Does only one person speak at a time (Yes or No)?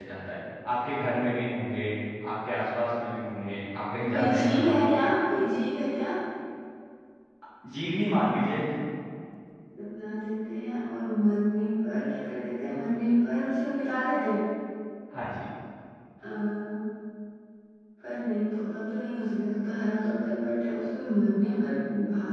No